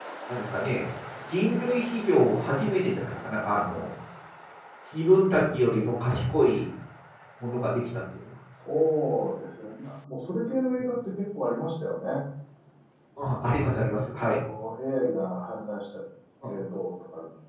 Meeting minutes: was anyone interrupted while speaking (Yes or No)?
No